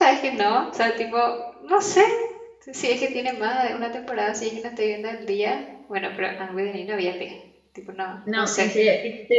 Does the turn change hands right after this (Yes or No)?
Yes